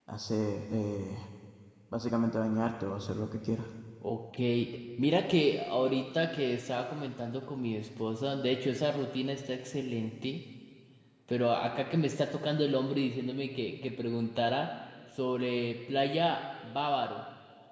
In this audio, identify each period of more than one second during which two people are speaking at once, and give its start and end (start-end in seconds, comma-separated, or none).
none